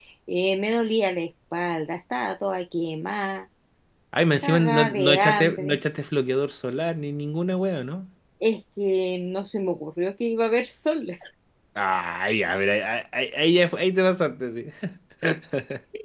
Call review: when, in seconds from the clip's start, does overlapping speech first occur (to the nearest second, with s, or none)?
4 s